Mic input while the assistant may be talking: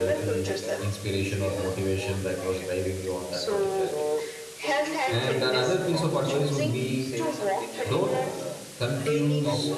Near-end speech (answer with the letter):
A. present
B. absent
A